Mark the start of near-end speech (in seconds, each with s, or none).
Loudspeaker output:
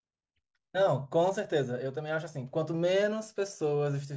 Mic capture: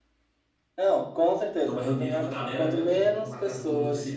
1.6 s